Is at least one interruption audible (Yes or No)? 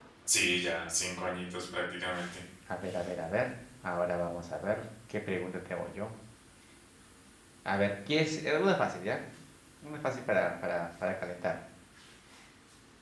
No